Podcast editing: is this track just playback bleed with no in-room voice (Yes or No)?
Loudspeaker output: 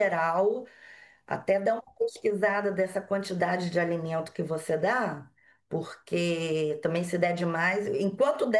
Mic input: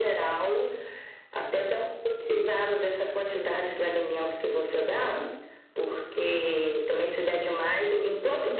No